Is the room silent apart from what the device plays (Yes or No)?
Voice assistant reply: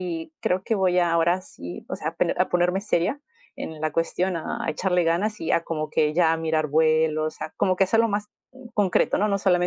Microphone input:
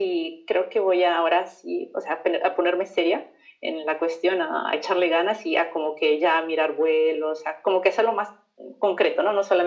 Yes